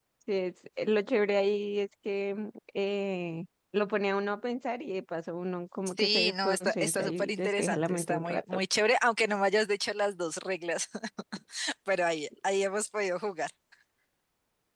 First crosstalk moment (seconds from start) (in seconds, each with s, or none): 5.9 s